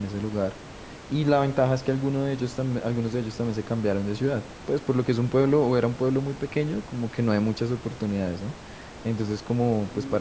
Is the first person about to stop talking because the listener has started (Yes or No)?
No